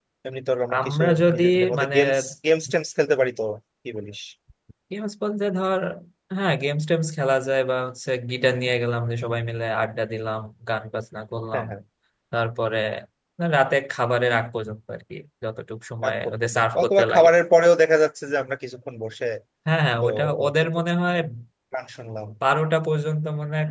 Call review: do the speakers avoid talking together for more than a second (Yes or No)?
No